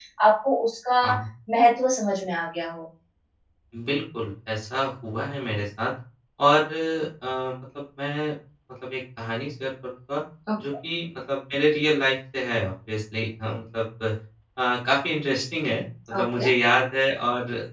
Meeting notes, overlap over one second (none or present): none